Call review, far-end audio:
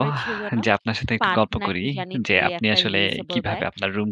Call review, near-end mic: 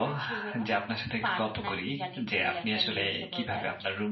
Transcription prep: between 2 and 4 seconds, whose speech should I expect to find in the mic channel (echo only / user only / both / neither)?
echo only